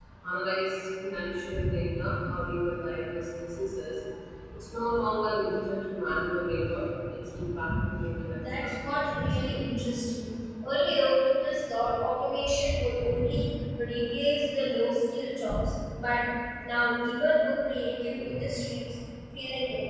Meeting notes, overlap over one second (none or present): present